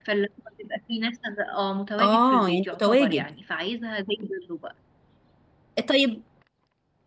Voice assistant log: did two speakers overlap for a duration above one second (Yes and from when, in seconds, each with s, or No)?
Yes, from 2.0 s